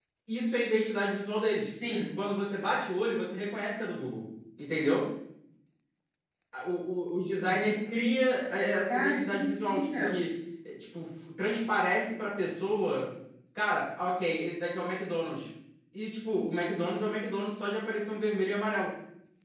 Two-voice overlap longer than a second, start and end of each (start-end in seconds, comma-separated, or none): 8.9-10.1